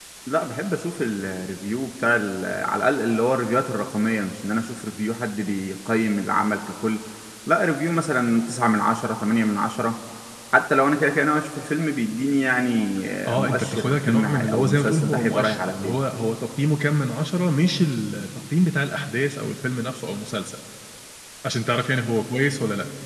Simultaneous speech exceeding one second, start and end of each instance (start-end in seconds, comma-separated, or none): 13.2-16.0